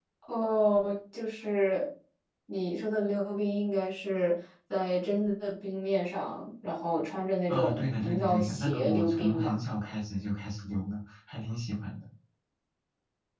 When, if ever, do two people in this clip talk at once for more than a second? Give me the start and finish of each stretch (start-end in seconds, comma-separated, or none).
7.5-9.6